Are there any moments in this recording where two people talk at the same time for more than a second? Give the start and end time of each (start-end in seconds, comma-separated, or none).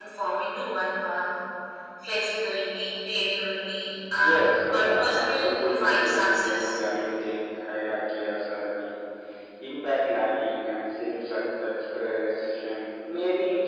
4.2-6.6